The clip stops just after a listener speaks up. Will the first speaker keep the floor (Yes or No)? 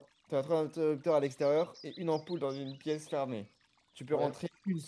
Yes